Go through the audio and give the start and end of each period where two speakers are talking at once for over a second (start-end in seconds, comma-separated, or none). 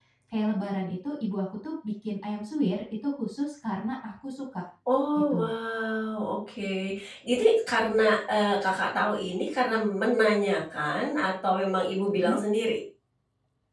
none